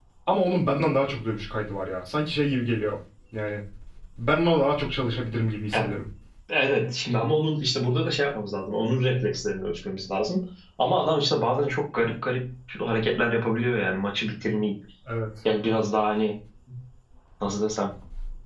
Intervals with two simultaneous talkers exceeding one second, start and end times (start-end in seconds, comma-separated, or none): none